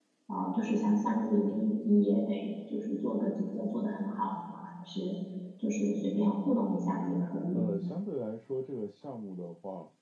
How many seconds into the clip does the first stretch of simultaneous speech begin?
none

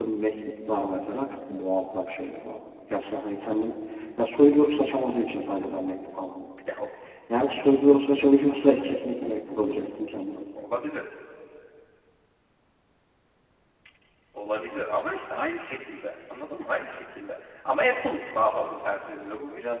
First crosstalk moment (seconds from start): none

